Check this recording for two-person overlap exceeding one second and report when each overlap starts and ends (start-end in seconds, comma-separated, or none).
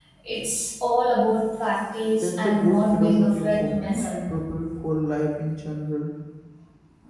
2.2-4.1